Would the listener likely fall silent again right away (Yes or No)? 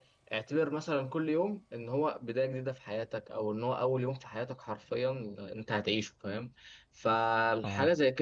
Yes